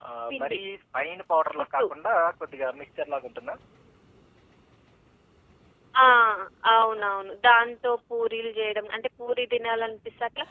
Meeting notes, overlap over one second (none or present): none